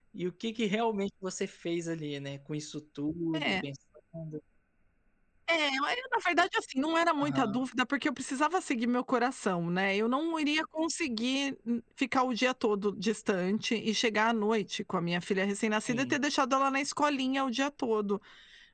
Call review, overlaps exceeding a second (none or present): none